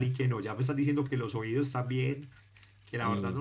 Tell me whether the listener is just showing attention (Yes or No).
Yes